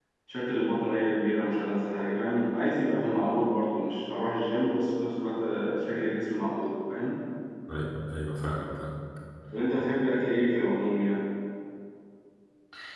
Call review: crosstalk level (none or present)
none